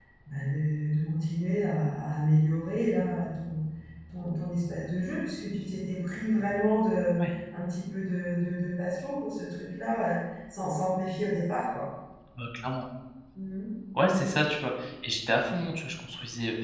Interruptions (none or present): none